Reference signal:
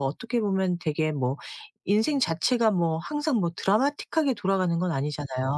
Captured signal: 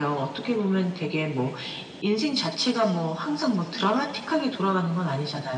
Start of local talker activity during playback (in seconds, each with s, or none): none